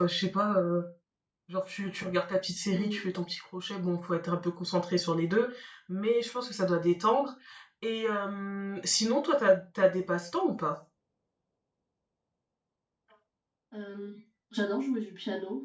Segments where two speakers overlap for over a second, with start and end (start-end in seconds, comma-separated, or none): none